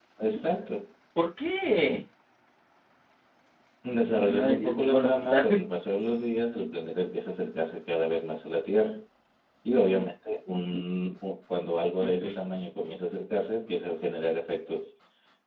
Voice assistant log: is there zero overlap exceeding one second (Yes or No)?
No